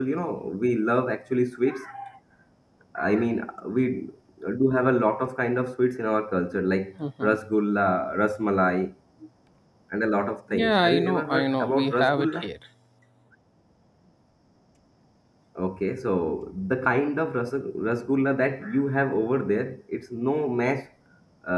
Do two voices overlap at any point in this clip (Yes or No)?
Yes